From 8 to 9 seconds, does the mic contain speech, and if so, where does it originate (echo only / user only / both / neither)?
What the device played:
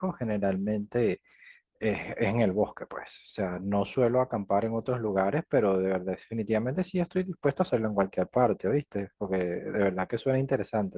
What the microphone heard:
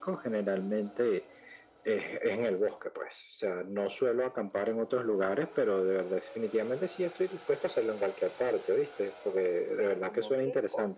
echo only